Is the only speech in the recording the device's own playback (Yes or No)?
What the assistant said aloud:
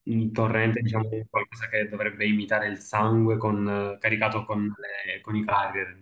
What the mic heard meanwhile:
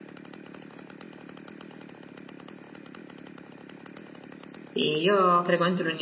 No